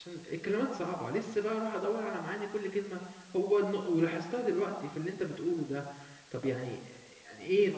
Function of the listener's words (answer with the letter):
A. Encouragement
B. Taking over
B